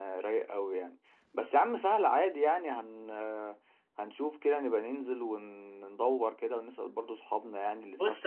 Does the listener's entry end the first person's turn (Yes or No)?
Yes